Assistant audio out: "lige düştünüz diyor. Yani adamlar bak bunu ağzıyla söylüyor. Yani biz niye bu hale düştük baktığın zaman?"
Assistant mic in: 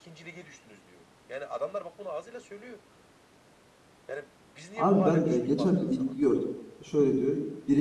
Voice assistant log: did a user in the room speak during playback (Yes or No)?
Yes